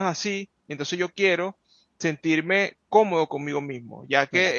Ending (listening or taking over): taking over